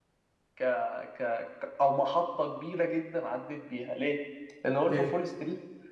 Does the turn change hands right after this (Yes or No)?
No